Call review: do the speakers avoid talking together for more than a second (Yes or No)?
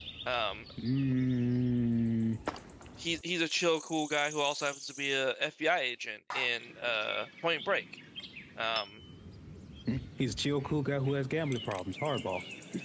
Yes